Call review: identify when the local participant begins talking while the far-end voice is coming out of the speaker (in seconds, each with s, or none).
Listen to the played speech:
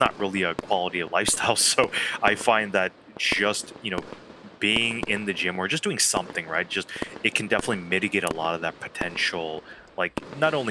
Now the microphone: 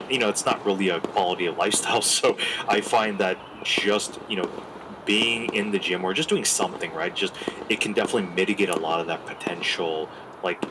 none